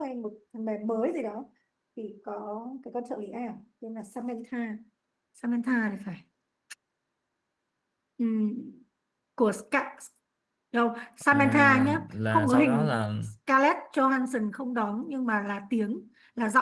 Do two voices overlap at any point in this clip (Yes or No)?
Yes